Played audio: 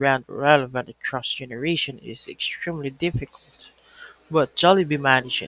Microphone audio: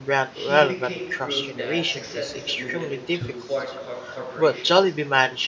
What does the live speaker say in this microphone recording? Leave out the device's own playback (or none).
He became proof that success isn't limited to foreign cor- corporations.